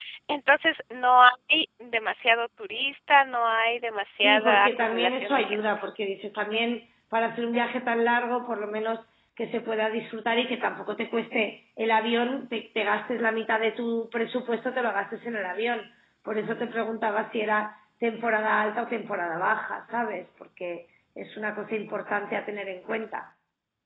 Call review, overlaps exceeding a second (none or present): present